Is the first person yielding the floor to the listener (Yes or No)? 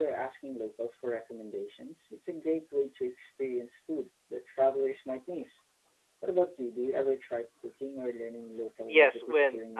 Yes